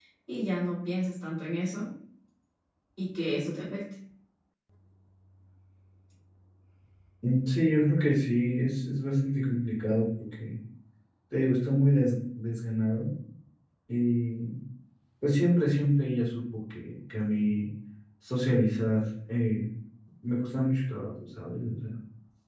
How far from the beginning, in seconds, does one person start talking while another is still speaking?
none

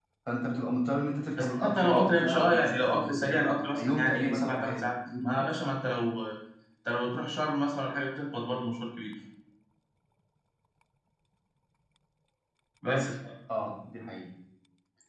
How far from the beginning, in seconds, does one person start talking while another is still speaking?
1.4 s

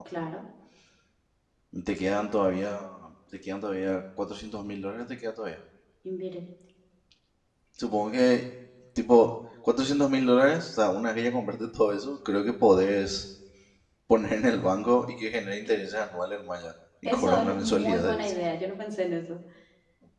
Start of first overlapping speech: 17.0 s

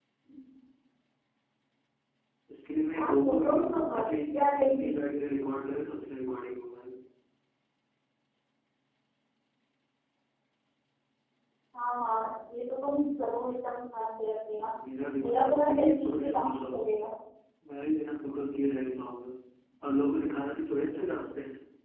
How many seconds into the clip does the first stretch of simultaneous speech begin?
2.9 s

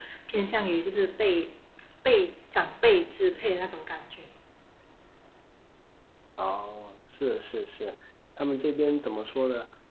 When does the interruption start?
none

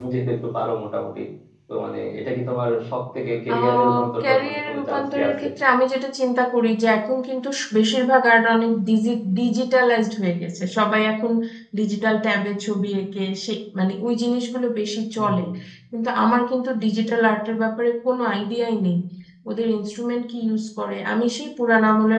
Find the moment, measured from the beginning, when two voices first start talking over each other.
3.5 s

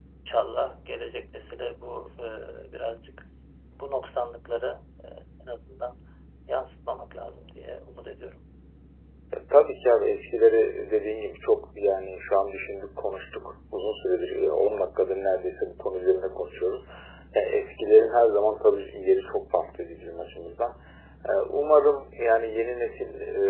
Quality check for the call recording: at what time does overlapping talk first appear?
none

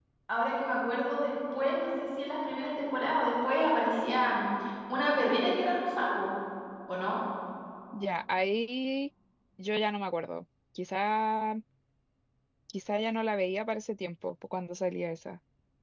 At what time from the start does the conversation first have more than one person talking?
none

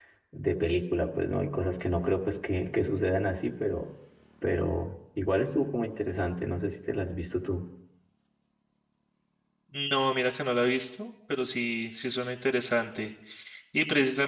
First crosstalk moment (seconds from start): none

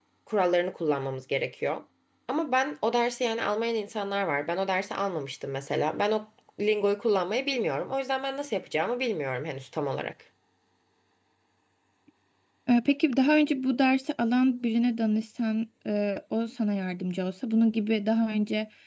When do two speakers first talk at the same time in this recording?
none

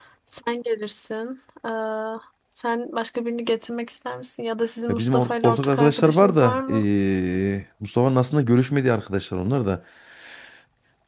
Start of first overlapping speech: 4.9 s

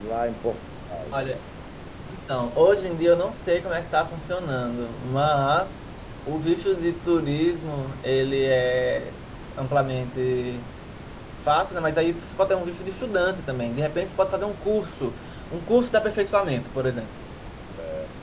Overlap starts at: none

